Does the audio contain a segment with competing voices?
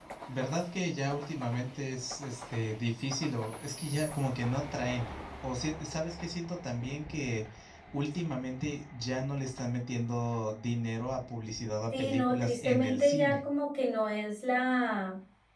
Yes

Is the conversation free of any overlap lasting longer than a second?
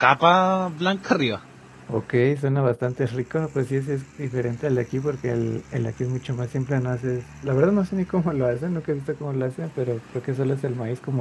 Yes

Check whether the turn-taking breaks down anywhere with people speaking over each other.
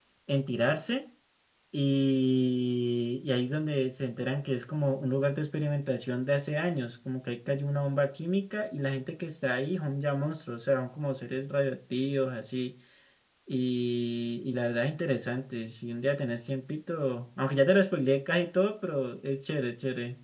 No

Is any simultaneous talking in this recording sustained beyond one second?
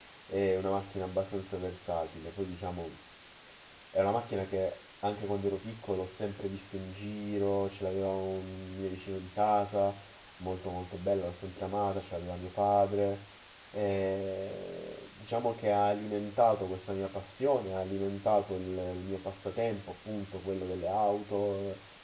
No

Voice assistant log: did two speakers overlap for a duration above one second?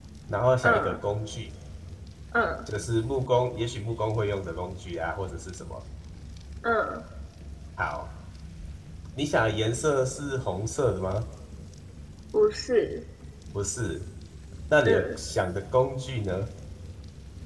No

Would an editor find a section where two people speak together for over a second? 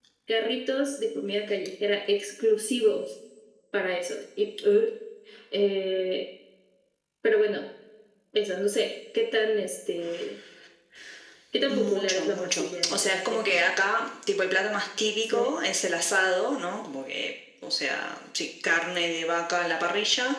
Yes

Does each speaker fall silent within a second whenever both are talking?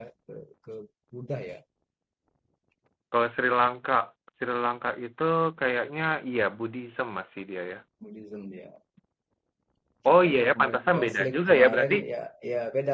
No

